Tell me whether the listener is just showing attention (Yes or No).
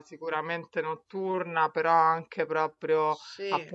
Yes